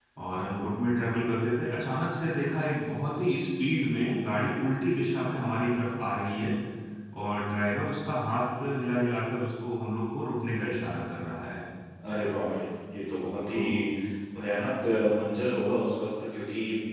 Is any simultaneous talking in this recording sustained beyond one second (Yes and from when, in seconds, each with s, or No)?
No